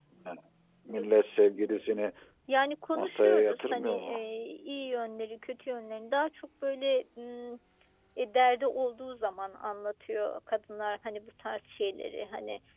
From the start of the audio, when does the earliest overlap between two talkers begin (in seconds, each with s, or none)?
2.9 s